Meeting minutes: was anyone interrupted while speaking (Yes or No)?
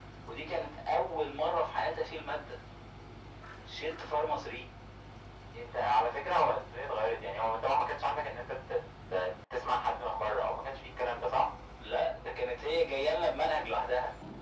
No